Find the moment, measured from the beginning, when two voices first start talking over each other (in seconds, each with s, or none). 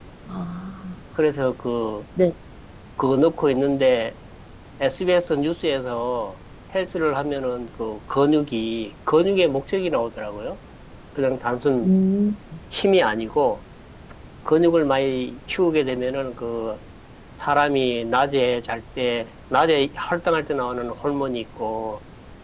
none